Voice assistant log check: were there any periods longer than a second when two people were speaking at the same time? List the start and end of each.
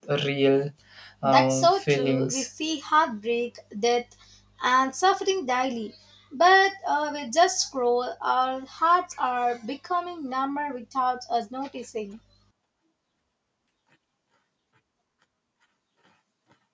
1.2-2.5

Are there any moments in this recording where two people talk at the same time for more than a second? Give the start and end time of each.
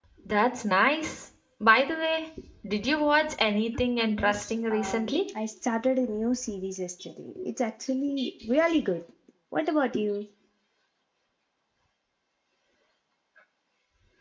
4.0-5.2

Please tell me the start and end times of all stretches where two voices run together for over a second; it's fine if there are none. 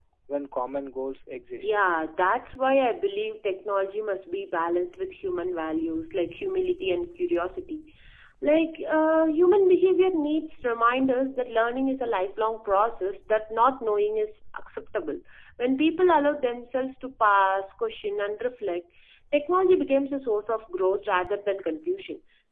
none

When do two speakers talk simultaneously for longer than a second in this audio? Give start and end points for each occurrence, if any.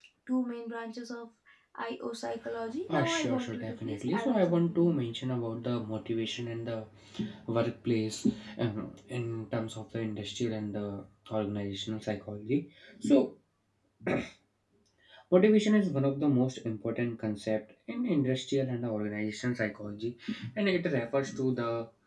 2.9-5.0

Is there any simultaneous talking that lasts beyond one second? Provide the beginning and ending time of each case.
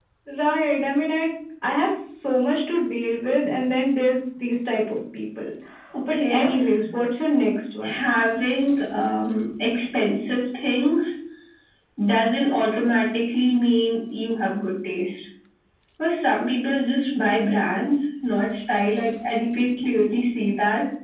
none

